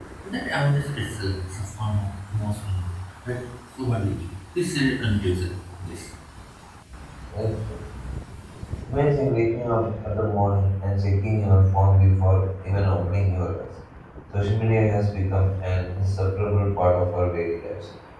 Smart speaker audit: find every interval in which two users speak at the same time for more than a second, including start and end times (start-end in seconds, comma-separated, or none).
none